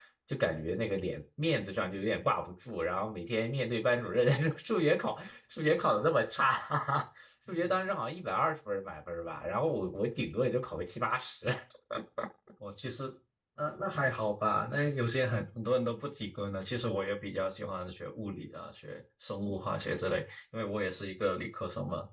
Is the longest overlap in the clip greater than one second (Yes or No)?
No